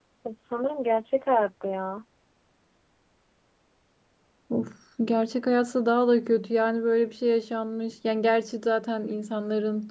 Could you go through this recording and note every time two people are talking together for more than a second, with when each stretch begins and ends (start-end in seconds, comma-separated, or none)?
none